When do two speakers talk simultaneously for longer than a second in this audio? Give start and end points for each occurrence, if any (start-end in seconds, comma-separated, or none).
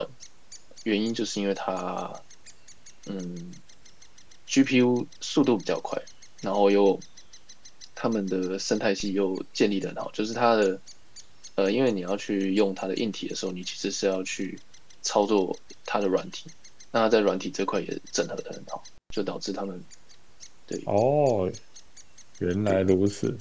none